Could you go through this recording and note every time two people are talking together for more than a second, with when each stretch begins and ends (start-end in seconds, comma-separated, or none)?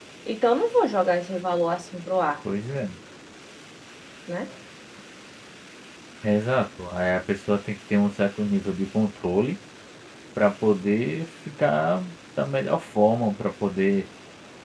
none